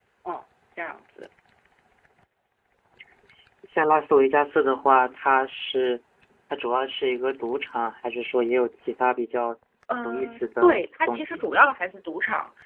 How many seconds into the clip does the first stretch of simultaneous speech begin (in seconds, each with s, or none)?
10.0 s